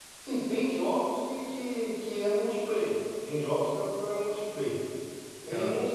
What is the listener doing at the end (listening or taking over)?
listening